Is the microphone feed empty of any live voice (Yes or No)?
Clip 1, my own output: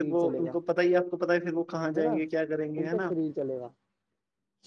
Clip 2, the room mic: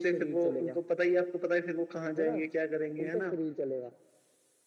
Yes